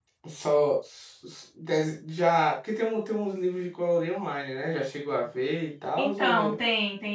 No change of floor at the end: No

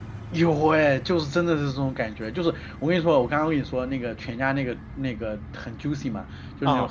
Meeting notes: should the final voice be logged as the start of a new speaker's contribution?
No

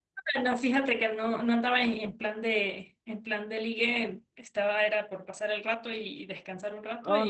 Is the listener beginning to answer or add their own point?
Yes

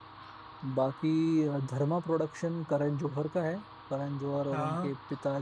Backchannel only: Yes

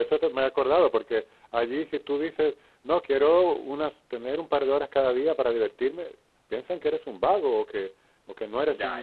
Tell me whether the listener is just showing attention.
Yes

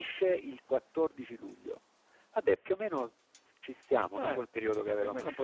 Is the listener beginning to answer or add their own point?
Yes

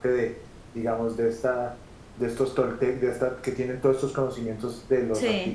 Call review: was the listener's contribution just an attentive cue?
Yes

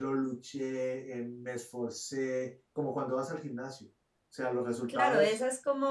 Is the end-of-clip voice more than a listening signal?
Yes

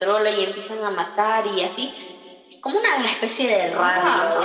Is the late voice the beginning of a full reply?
Yes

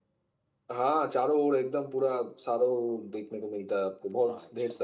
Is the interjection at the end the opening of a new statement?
Yes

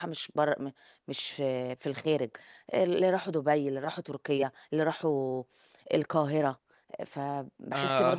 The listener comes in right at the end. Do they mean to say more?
No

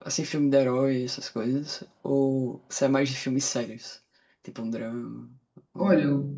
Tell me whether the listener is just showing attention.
No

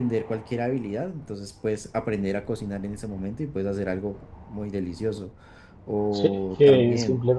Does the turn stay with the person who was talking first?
No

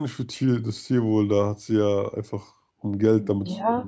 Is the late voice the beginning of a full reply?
Yes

